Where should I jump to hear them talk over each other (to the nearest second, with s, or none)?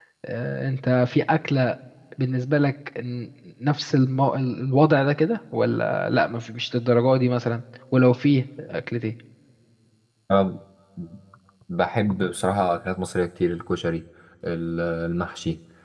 none